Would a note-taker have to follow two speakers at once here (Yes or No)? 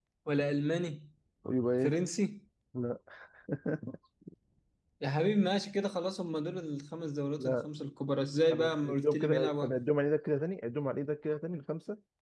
Yes